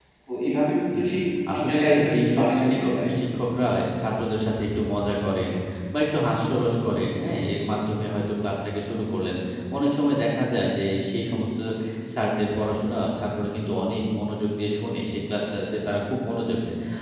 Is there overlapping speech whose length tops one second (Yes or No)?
Yes